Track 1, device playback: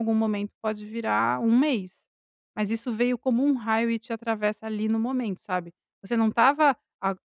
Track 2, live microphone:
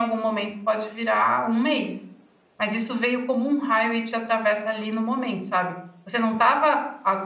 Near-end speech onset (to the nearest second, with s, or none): none